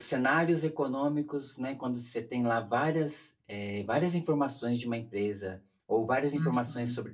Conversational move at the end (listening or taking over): listening